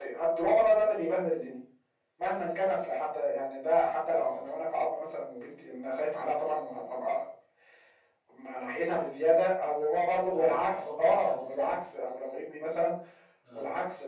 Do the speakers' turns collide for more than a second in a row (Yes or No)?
Yes